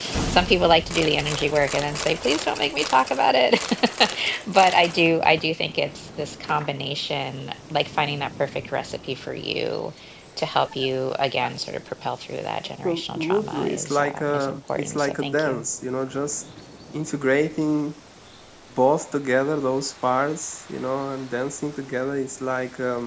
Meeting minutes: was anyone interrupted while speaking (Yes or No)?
Yes